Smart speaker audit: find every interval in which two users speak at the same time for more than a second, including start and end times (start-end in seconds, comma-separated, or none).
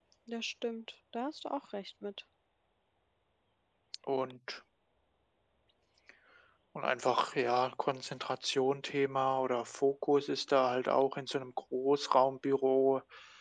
none